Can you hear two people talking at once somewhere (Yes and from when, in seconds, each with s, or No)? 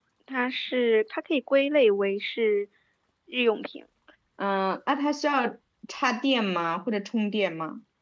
No